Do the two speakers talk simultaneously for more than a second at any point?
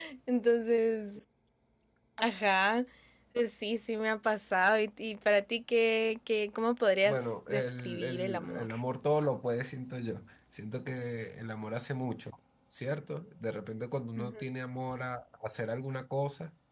Yes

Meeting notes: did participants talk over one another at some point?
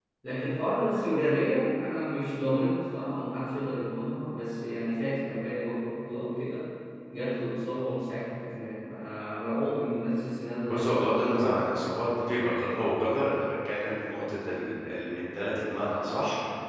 Yes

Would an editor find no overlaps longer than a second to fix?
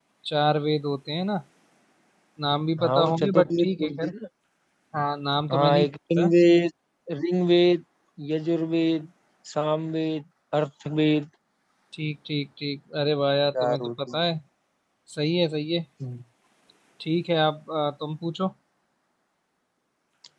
No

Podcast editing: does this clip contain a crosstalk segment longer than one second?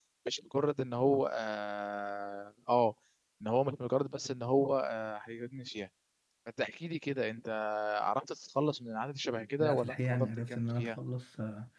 Yes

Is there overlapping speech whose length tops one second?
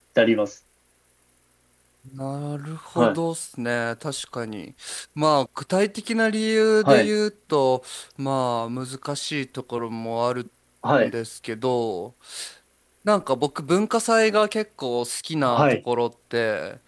No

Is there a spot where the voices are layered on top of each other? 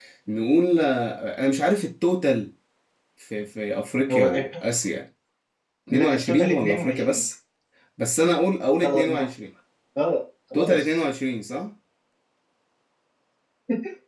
Yes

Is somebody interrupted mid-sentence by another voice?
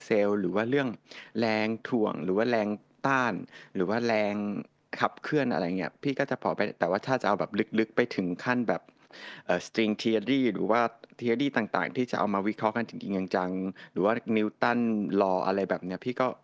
No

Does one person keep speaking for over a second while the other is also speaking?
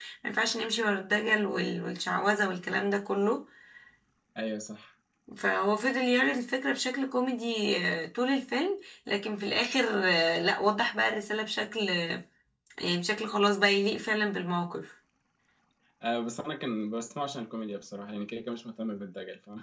No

